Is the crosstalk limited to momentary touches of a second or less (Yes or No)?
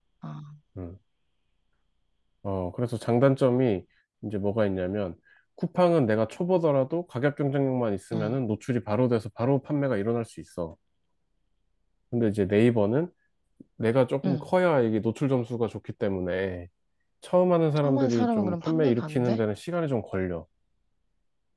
No